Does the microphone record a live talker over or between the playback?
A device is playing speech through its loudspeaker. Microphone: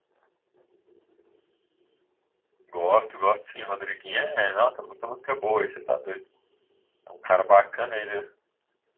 Yes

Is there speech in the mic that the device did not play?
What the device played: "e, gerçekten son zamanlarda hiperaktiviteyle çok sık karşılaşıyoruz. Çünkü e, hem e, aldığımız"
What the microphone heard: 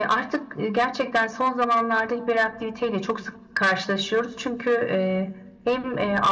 No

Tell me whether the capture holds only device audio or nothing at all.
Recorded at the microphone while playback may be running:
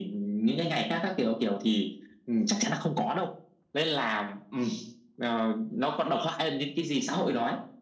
Yes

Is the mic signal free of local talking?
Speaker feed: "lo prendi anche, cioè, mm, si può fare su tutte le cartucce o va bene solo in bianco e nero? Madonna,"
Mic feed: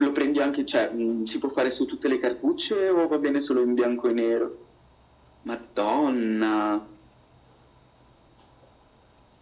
Yes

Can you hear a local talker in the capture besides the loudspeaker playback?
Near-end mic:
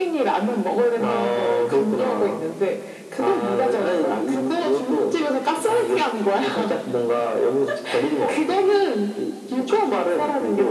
No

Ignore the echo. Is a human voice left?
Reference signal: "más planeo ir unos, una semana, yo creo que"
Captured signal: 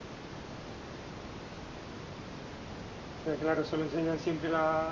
Yes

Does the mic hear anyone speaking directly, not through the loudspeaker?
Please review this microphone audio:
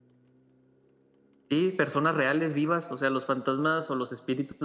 Yes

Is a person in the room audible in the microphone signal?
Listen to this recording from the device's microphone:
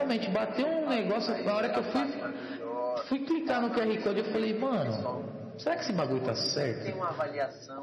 Yes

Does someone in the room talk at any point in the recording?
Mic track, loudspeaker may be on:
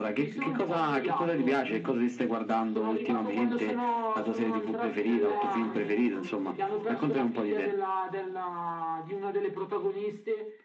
Yes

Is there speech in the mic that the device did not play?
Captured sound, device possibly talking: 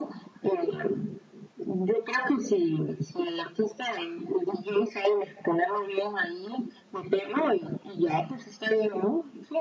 No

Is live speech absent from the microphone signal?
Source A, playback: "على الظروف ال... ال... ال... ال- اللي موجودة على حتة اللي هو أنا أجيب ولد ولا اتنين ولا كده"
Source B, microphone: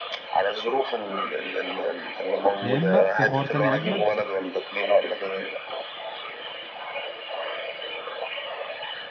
No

